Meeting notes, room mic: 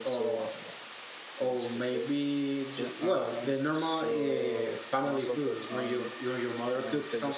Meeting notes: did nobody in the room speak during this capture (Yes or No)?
No